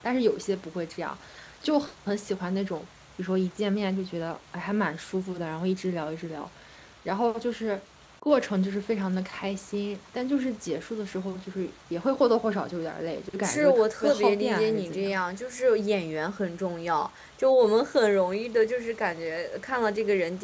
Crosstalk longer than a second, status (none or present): present